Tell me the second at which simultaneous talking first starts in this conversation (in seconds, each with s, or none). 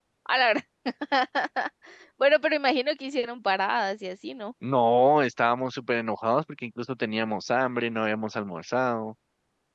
none